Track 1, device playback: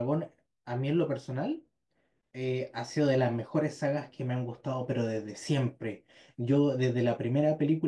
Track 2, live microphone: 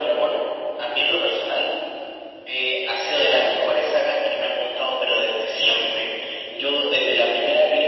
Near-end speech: none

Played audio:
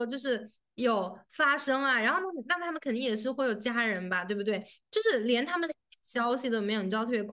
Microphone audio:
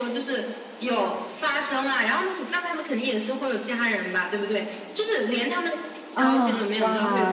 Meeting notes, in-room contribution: present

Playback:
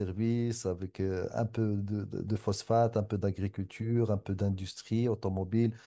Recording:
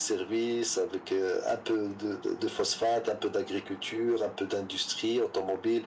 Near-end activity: none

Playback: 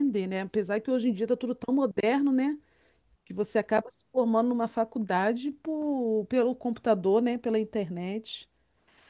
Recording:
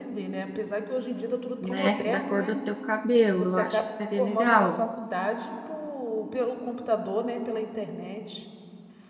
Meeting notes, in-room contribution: present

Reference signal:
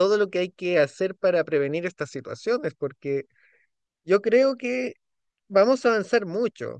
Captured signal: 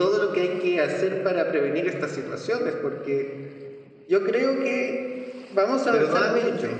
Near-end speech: present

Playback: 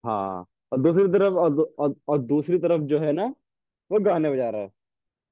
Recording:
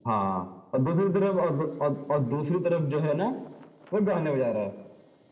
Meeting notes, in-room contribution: none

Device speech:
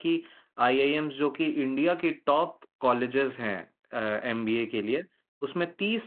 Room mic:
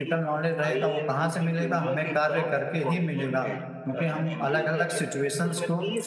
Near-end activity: present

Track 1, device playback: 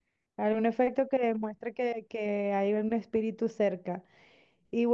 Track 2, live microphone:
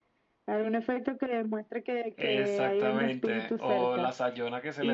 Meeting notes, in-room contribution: present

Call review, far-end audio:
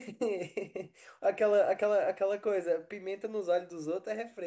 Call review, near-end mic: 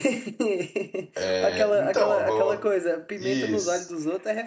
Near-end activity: present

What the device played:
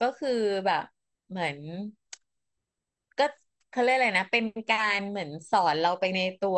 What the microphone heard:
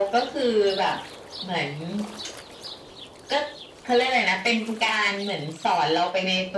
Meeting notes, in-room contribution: none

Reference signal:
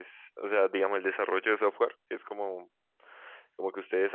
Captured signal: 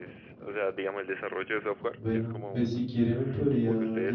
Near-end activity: present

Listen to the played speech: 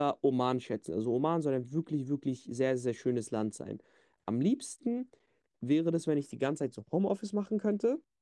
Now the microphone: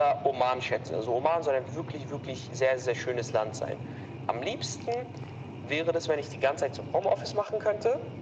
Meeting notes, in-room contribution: none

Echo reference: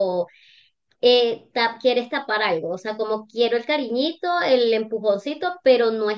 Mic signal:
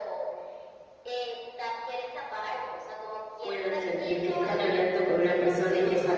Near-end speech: present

